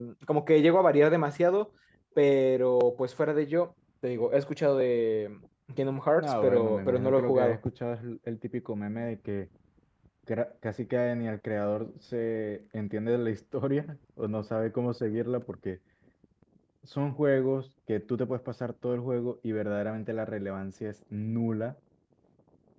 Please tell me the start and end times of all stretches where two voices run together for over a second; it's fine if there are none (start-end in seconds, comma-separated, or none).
6.2-7.6